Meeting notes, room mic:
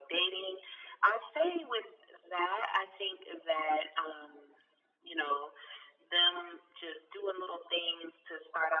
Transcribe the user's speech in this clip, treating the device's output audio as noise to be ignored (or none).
none